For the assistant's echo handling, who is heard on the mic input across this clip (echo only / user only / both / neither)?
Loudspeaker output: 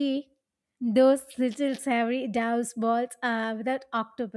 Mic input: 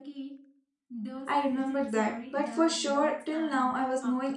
both